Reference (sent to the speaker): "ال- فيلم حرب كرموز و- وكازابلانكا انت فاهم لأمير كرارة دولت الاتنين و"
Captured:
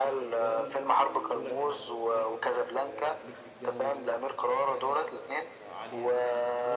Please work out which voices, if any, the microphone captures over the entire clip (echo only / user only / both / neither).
both